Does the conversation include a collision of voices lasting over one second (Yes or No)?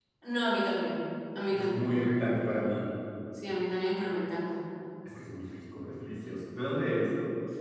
No